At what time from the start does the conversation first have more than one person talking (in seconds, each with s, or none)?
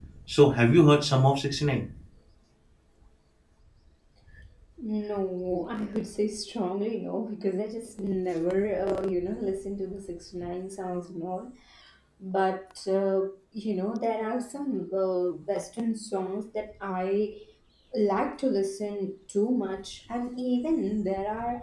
none